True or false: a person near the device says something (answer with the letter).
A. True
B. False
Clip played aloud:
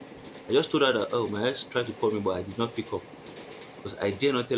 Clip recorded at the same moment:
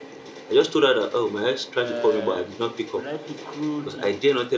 A